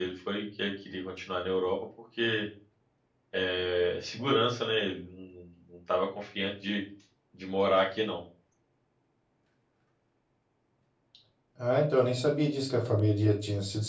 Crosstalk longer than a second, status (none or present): none